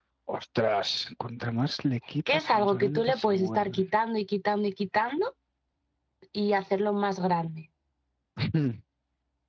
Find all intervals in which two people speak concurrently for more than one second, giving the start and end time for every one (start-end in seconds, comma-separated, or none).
2.3-3.8